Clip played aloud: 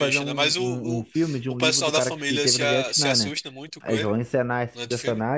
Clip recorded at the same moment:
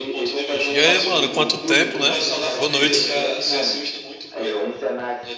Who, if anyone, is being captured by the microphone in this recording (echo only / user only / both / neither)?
both